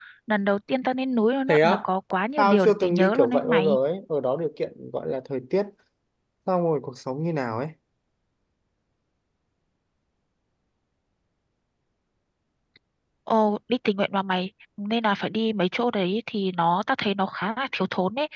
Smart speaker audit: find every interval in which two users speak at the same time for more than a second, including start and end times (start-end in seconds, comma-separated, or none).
2.4-3.8